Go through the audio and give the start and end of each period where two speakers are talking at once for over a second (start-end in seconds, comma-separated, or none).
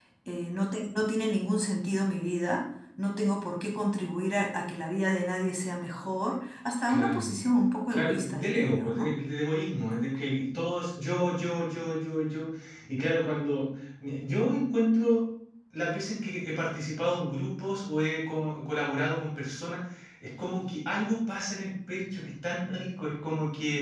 7.9-9.1